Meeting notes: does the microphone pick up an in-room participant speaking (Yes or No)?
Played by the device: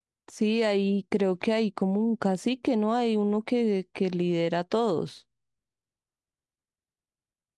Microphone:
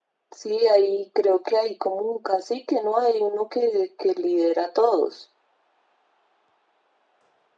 No